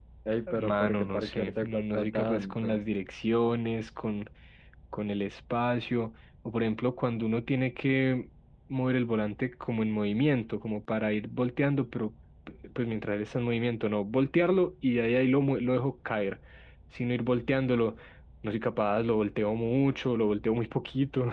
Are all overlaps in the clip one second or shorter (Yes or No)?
No